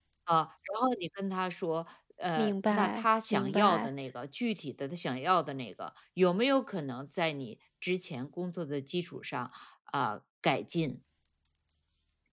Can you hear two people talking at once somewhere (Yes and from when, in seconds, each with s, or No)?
Yes, from 2.4 s